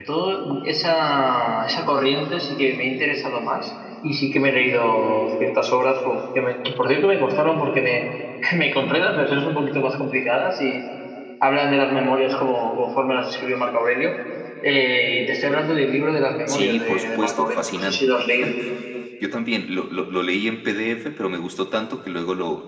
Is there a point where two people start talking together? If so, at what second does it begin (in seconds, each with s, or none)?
16.5 s